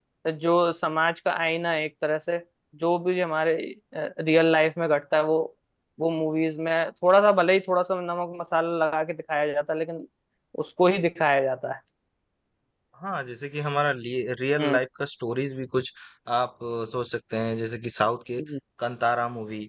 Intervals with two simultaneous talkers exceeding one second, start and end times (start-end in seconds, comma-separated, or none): none